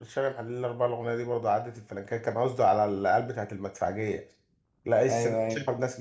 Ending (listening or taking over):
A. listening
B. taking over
A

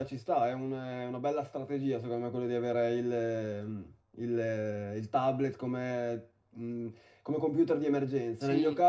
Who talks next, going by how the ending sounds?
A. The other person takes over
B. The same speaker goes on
B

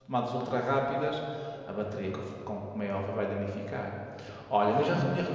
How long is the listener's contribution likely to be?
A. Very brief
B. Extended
A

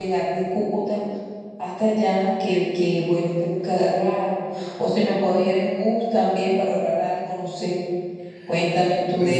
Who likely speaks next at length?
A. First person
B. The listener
B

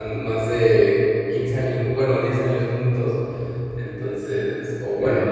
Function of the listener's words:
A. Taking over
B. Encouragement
B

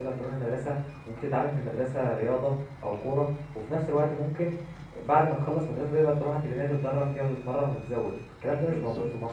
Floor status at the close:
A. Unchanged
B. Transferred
B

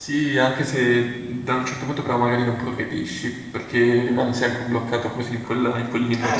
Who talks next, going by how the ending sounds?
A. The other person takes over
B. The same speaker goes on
A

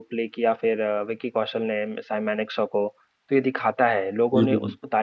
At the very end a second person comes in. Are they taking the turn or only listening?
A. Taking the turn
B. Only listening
B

